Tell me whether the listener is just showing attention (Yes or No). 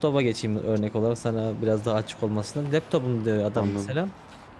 Yes